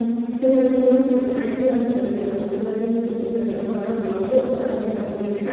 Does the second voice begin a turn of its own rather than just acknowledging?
Yes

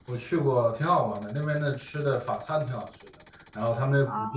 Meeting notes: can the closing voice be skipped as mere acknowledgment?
Yes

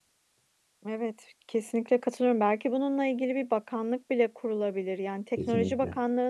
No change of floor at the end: Yes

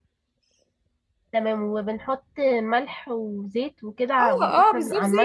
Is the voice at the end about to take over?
Yes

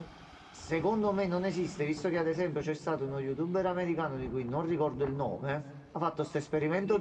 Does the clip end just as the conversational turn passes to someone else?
No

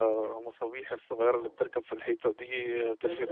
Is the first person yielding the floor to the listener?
No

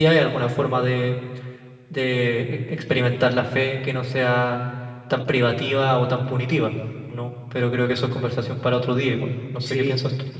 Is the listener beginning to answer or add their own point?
Yes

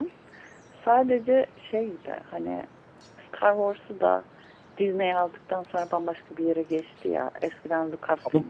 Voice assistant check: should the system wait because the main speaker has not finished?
Yes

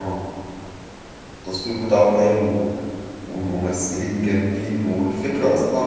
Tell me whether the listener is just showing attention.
Yes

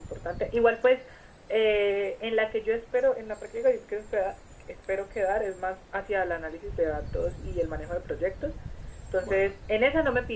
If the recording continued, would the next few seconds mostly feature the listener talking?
No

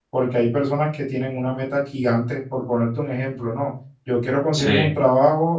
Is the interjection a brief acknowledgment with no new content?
Yes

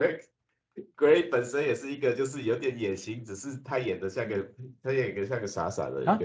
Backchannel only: No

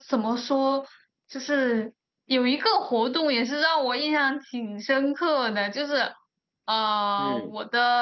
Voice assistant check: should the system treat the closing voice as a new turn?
No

